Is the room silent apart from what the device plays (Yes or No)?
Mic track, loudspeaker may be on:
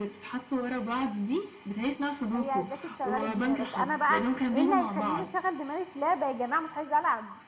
No